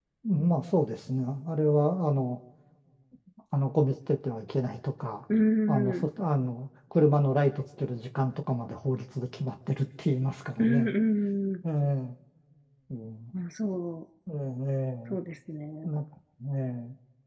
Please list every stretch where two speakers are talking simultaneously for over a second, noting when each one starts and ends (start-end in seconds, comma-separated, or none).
none